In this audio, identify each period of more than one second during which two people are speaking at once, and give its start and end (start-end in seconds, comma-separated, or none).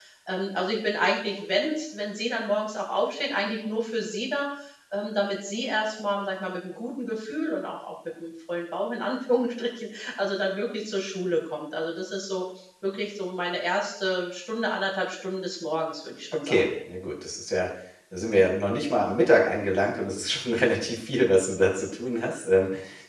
none